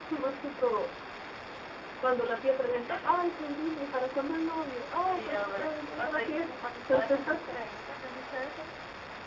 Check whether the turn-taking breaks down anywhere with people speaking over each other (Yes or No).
Yes